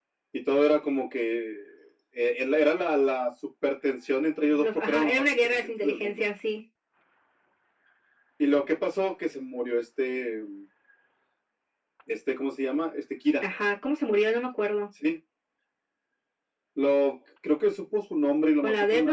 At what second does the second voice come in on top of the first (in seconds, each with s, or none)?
4.5 s